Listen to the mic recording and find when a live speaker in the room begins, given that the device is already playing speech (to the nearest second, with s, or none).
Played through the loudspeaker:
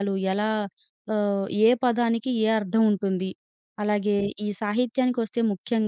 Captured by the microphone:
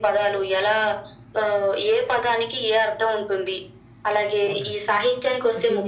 4 s